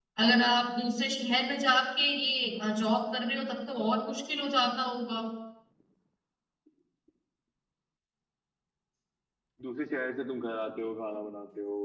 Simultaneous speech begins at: none

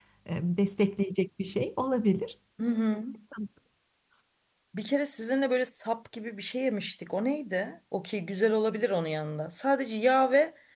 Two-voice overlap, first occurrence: none

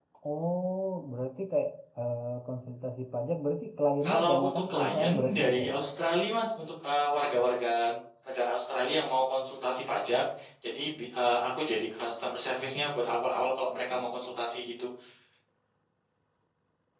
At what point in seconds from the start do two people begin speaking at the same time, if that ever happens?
4.0 s

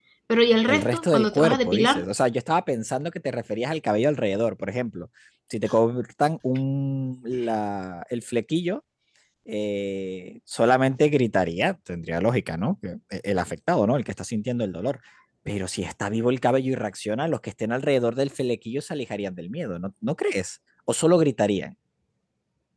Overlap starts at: 0.7 s

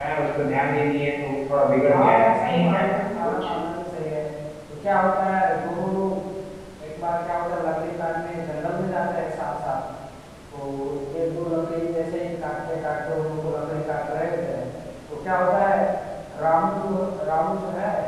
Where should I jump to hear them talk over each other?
1.8 s

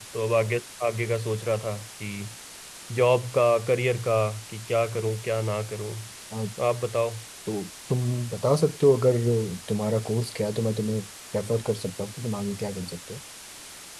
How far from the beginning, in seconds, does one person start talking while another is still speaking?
none

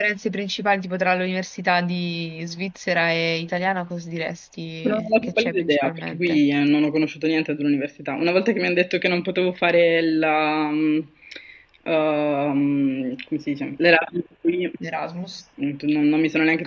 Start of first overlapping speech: 4.8 s

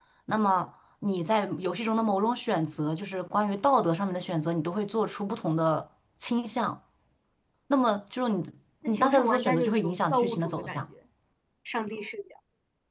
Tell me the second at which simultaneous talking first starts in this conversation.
8.9 s

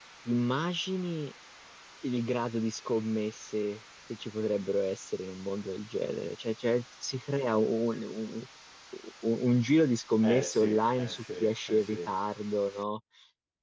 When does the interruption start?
10.2 s

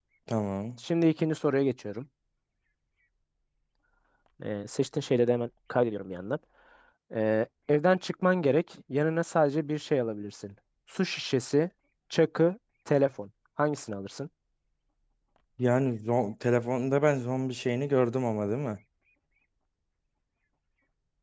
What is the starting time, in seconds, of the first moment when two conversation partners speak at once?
none

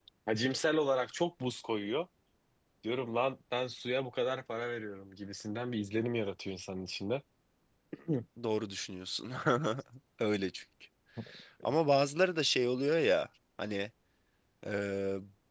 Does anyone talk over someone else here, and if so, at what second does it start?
none

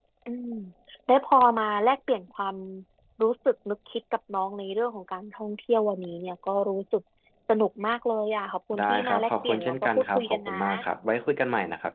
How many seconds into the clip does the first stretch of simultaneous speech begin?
8.7 s

